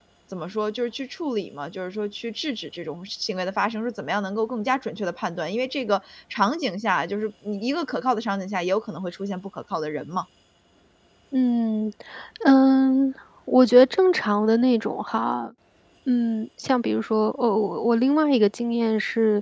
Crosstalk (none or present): none